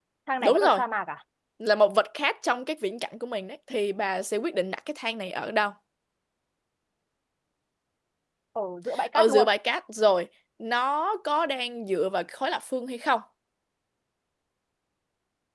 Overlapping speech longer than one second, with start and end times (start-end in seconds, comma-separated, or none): none